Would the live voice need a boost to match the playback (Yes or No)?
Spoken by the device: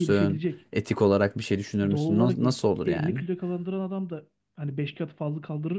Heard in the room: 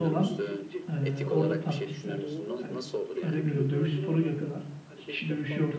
No